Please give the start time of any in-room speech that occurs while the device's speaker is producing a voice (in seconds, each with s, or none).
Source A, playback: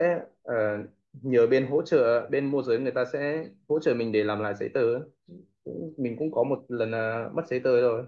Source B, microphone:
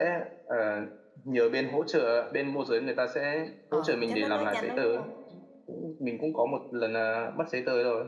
3.6 s